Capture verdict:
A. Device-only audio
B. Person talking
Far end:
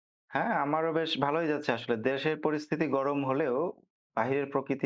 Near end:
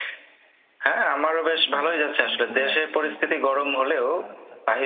B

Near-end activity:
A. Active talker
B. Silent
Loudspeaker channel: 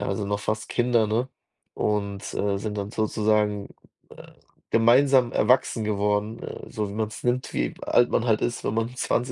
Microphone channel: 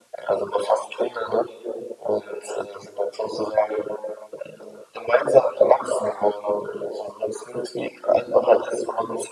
B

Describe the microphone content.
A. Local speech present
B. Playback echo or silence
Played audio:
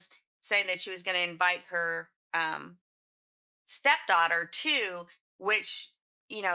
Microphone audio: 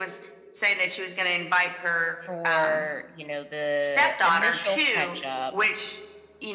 A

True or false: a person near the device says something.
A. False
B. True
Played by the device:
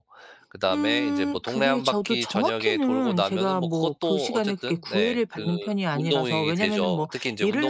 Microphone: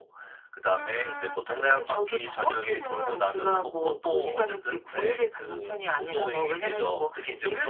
A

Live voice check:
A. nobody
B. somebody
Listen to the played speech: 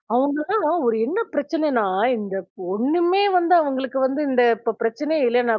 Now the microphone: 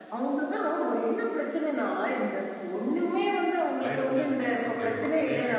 B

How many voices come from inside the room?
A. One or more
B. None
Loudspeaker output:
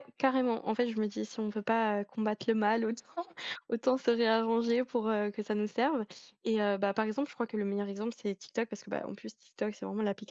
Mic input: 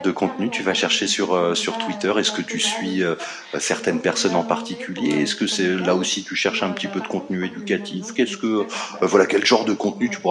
A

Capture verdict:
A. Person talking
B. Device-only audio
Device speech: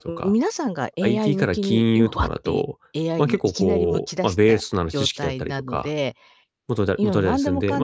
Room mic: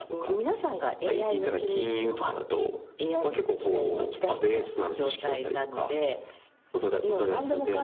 B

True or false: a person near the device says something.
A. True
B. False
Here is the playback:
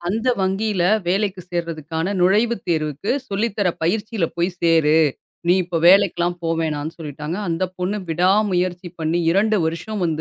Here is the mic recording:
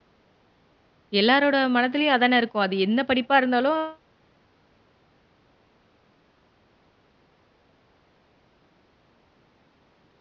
A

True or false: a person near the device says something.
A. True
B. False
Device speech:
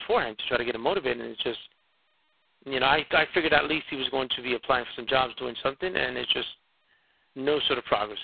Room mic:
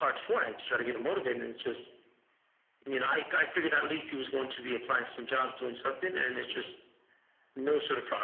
B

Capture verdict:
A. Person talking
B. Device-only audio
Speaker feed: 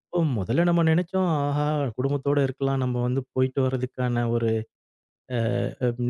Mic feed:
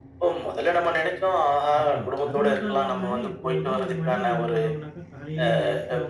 A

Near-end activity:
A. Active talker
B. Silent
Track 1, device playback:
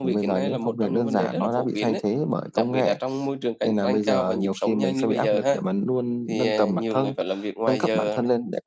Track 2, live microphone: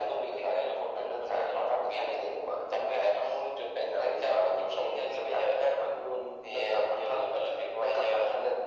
B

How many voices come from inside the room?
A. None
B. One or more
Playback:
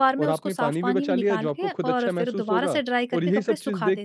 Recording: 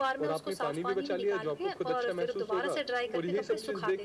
B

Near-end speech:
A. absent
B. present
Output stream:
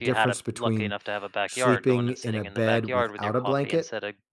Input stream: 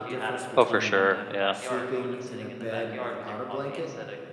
B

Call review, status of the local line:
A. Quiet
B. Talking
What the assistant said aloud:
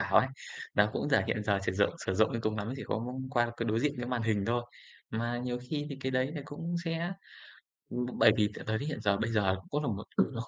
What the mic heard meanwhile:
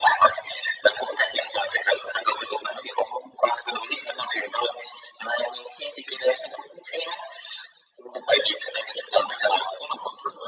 A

